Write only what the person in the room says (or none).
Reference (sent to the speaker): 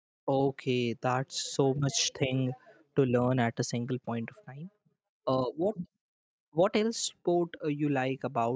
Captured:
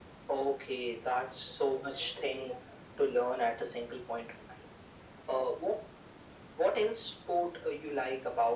none